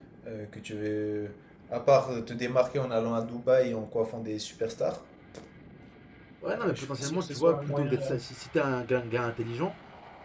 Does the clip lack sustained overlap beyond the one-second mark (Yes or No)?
No